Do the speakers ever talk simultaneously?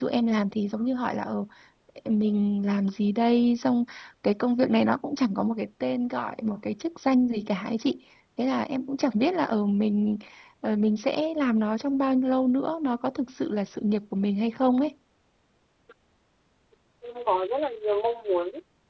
No

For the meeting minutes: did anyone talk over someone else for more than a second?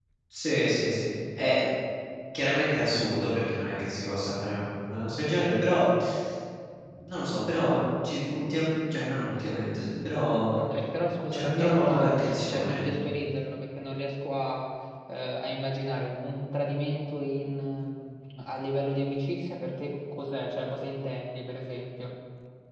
Yes, from 11.3 s

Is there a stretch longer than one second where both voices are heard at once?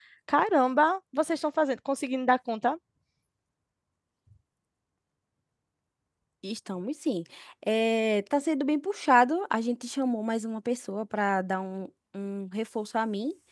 No

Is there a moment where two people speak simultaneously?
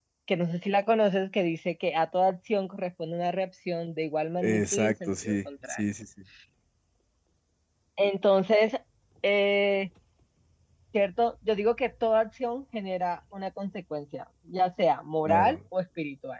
Yes, from 4.4 s

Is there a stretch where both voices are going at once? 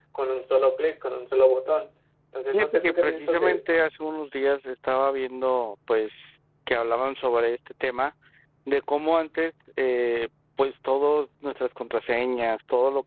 Yes, from 2.5 s

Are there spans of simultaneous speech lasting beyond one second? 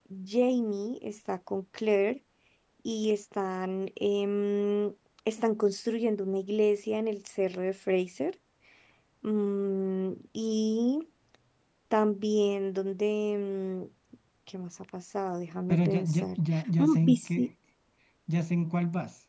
Yes, from 15.7 s

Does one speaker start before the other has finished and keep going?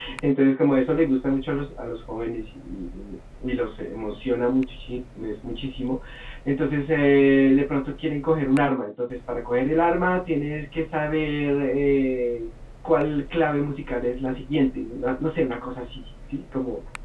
No

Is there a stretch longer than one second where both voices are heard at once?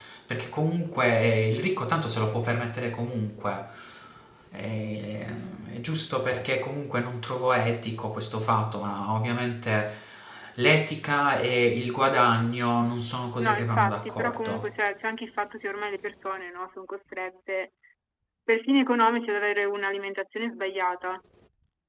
Yes, from 13.4 s

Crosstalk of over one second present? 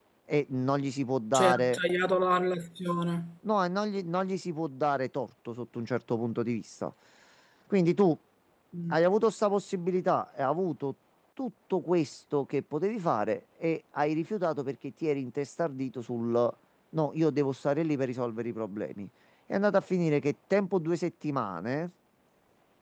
No

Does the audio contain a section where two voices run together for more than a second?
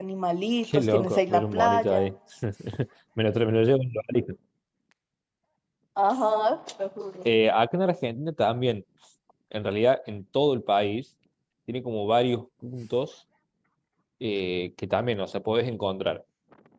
Yes, from 0.6 s

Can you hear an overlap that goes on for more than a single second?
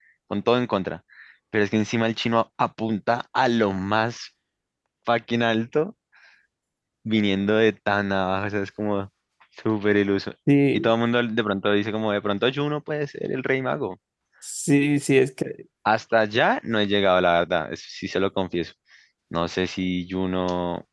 No

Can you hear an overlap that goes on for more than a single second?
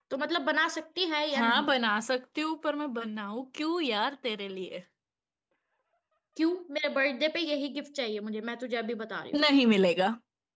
No

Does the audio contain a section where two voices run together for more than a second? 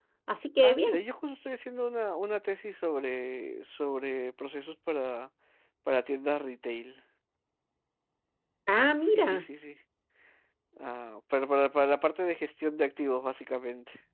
No

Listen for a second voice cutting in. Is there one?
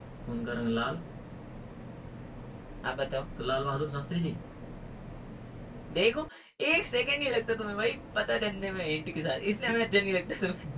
No

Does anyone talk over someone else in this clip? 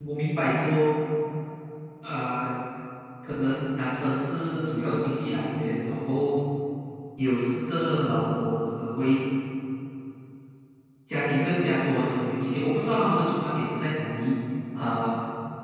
No

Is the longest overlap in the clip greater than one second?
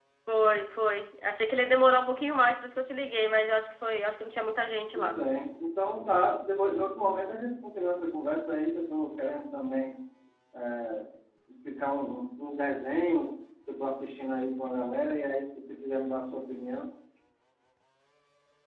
No

